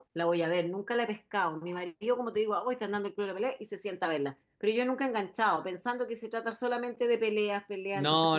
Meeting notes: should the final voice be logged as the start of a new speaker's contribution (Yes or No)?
Yes